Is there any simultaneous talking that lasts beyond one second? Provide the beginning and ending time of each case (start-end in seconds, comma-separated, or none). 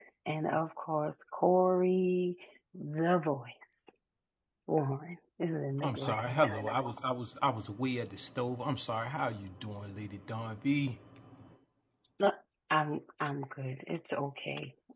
none